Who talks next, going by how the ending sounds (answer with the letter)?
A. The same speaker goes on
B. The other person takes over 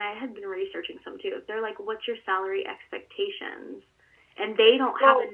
B